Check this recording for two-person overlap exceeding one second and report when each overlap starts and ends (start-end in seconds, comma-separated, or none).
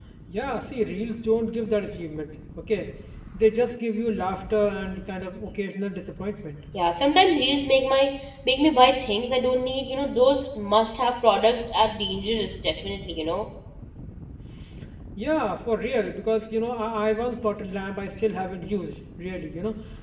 none